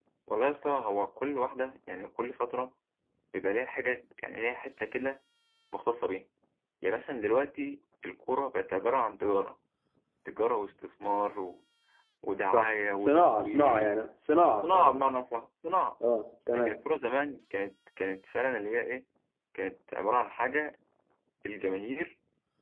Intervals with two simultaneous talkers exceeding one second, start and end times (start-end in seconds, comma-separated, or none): 12.5-13.9